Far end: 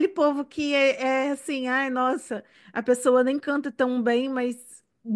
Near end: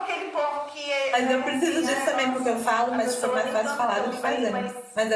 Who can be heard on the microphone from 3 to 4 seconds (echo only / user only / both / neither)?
both